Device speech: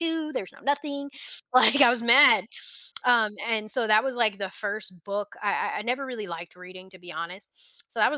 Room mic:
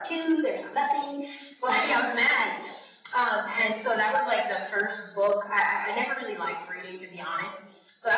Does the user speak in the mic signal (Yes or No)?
No